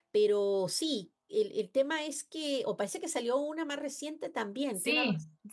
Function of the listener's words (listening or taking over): taking over